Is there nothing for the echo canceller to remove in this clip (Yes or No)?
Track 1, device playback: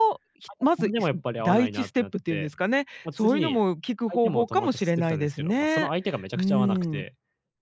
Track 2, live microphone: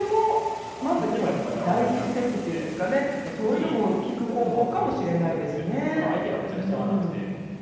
No